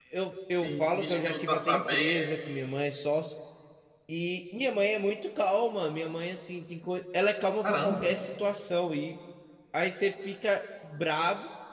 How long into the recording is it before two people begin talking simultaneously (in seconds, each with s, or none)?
0.6 s